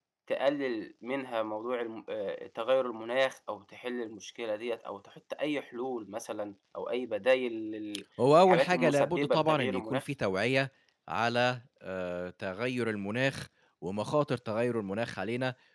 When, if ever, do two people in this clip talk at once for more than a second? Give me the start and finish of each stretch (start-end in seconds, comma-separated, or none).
8.5-10.0